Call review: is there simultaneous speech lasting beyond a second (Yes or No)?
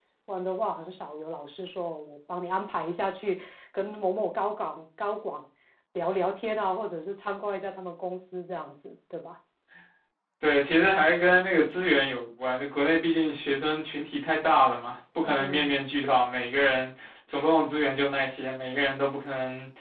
No